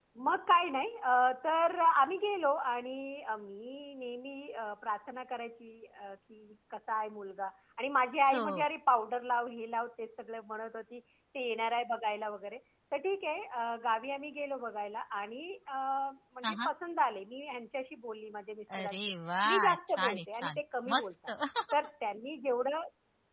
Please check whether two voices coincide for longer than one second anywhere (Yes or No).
Yes